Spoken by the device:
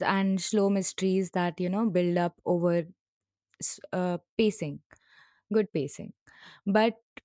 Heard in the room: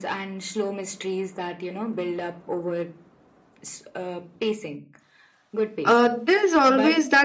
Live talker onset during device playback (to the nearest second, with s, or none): 6 s